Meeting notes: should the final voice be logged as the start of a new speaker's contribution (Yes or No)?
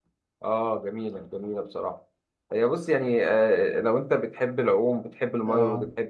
No